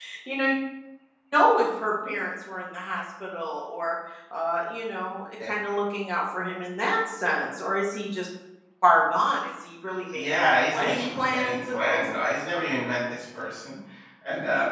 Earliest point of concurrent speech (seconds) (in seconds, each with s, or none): 10.1 s